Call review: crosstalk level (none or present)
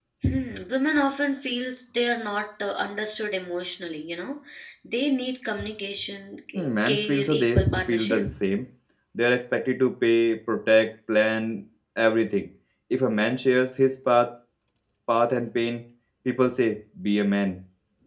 present